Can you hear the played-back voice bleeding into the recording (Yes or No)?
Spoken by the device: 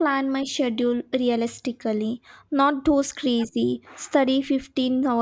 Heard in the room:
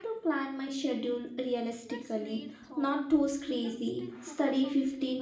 Yes